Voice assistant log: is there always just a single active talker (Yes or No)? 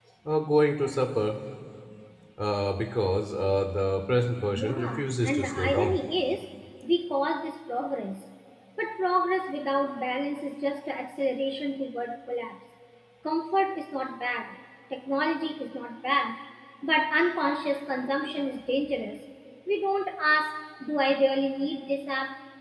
No